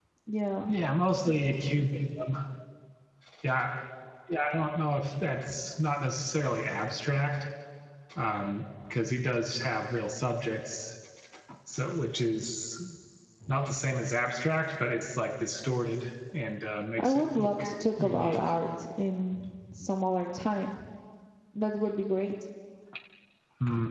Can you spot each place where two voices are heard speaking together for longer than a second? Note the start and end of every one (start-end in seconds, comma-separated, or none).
17.0-18.4